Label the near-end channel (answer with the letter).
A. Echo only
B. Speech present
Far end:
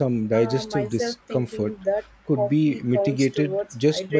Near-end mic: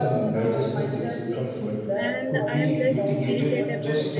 B